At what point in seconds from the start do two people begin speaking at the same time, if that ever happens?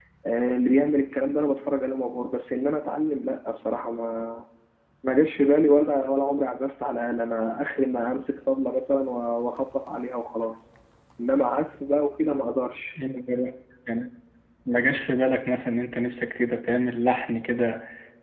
none

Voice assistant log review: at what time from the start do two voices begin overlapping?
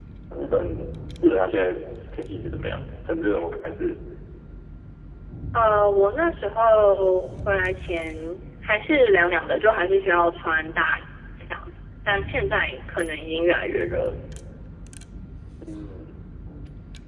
none

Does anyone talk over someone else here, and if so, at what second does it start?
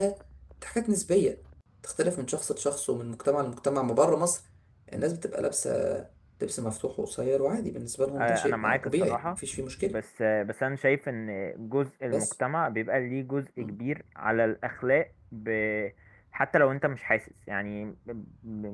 8.2 s

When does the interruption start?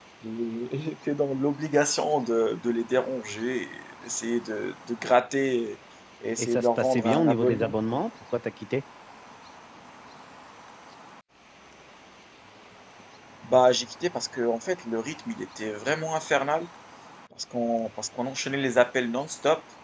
6.4 s

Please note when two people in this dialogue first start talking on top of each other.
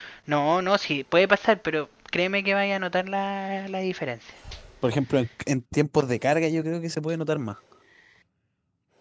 none

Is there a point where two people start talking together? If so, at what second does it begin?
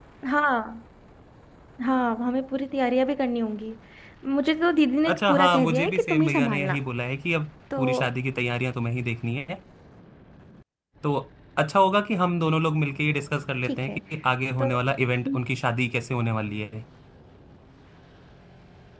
5.1 s

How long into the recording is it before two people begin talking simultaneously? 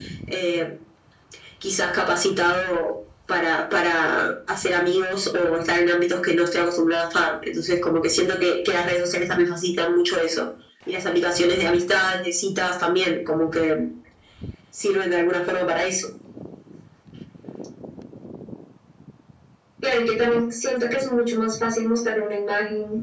none

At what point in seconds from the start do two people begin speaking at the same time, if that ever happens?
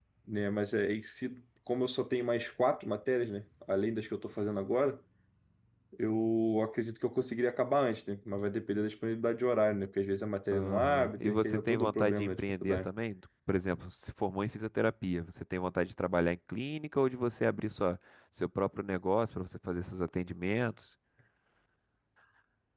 10.5 s

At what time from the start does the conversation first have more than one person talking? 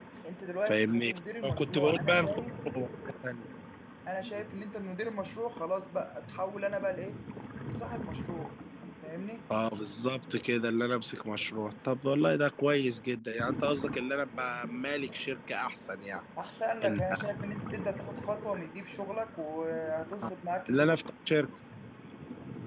0.7 s

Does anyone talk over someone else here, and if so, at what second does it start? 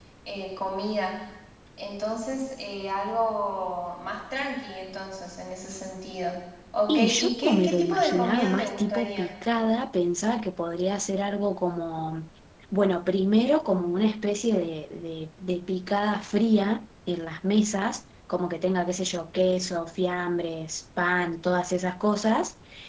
6.9 s

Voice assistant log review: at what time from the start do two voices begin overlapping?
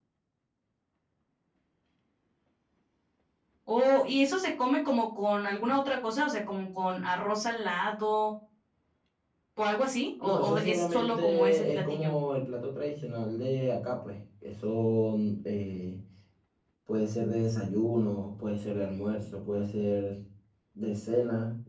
10.2 s

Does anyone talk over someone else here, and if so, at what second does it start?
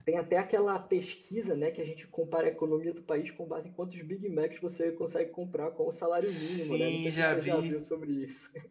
6.2 s

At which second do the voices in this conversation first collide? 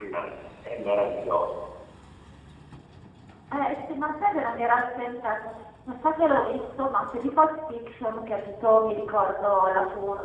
none

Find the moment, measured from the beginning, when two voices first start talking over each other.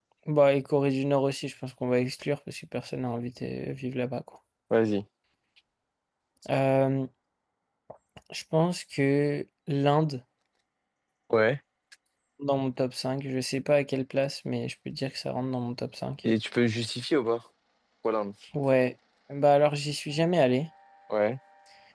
none

